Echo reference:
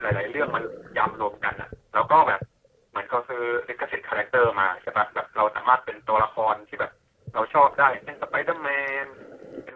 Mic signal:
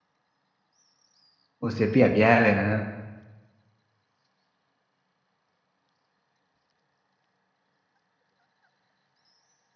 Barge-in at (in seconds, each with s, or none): 1.6 s